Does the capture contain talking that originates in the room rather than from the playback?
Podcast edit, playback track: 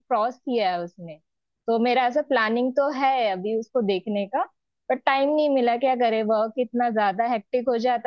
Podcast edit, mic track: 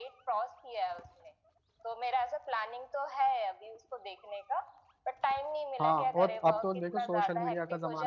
Yes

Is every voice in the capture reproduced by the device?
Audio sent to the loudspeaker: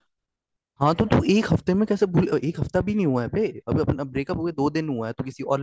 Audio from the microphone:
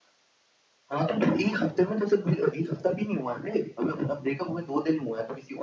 Yes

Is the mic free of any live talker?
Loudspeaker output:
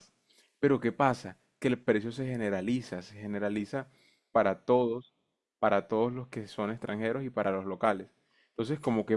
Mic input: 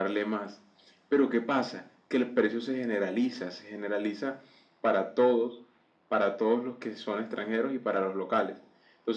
Yes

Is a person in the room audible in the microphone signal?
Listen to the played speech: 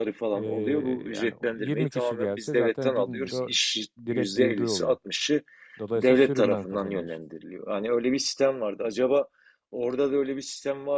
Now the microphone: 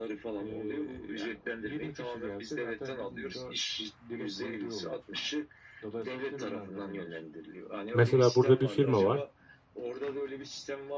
Yes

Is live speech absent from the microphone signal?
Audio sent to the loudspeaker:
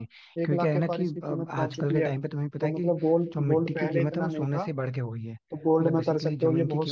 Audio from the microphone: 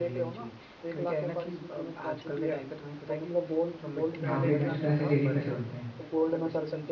No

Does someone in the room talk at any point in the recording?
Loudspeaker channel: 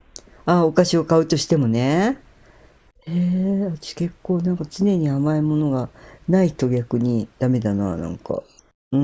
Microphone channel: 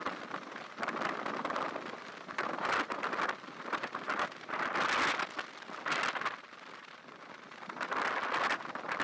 No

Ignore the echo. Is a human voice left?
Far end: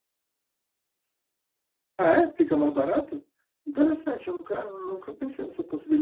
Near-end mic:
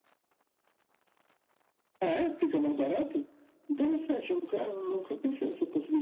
No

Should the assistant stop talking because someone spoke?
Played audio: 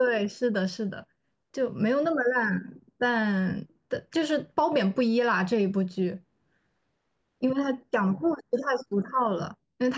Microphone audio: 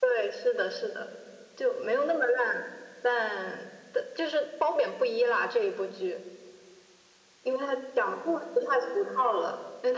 No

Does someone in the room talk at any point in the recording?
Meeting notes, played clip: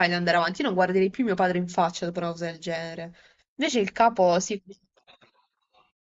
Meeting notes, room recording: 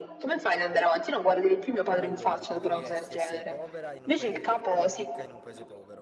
Yes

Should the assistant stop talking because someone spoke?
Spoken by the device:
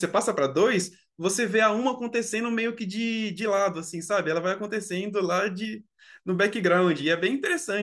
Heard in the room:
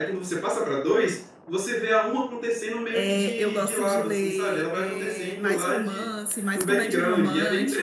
Yes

